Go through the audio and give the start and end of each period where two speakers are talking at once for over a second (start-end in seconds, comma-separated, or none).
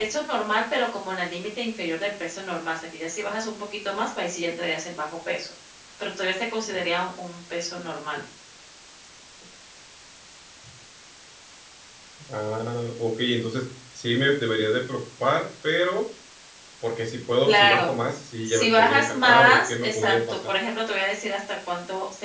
18.4-20.4